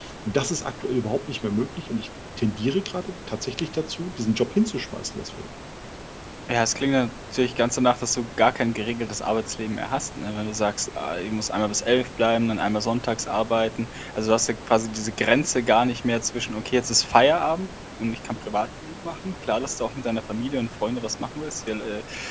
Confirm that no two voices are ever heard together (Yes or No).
Yes